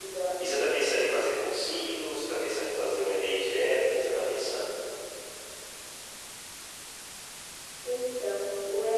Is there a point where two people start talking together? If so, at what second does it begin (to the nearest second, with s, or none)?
none